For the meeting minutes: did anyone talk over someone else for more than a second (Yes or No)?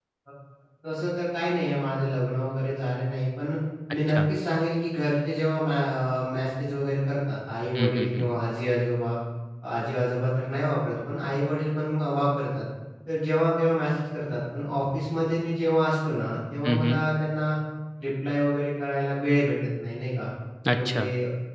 No